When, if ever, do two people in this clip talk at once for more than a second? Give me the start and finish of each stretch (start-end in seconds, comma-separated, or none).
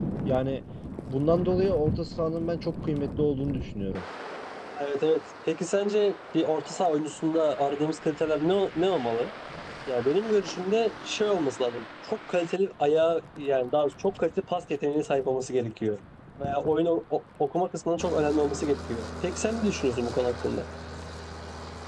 none